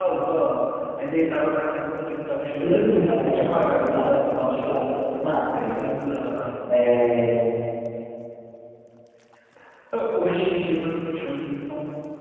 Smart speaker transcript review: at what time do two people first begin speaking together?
2.6 s

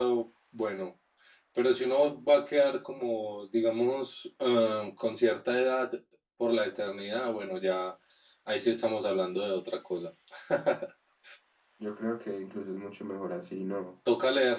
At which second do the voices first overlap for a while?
none

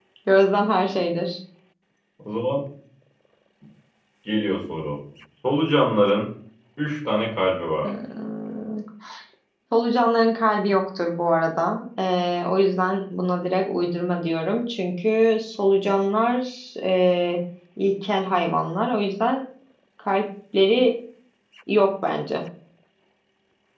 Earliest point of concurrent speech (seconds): none

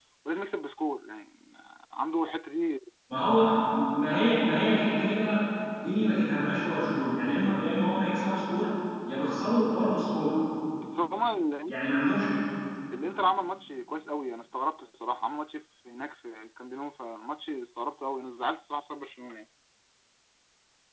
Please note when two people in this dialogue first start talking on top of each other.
none

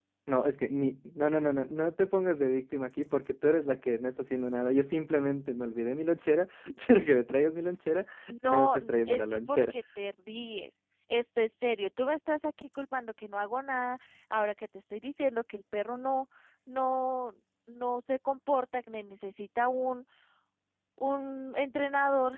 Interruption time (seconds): 8.4 s

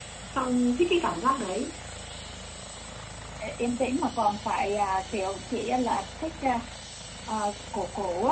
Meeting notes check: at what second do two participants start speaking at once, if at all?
none

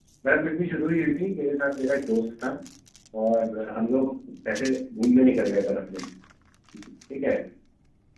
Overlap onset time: none

